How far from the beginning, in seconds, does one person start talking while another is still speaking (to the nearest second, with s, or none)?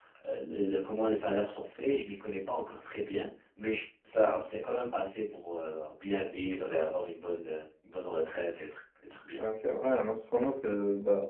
none